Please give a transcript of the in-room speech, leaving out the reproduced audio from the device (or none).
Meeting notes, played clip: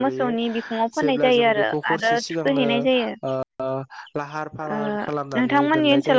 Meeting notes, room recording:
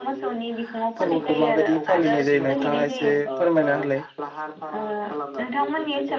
फोरबोखौ माबायदि फालिनाय जायो नोंथाङा एसे फोरमायना होलाय